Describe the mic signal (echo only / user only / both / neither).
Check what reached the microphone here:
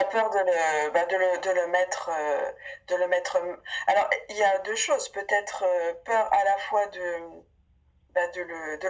echo only